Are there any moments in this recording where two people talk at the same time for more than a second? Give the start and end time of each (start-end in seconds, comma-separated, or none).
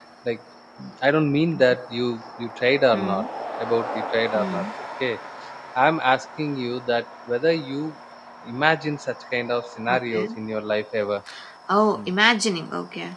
none